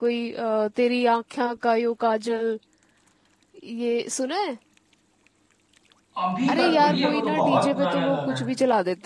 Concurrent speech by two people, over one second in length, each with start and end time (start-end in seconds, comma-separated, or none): 6.5-8.4